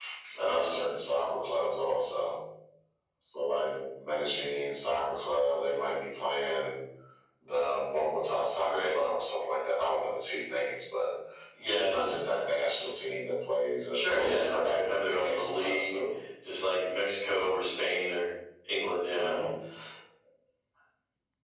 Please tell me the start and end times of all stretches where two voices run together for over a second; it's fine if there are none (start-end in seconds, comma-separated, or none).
13.9-15.9